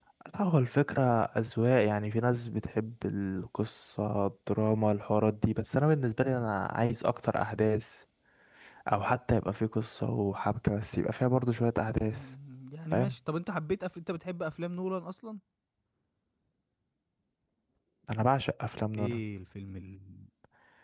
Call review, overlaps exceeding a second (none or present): none